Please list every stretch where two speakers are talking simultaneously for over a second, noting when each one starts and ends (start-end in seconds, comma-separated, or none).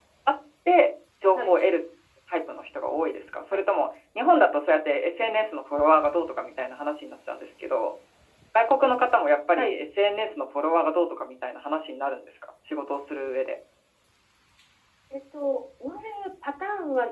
none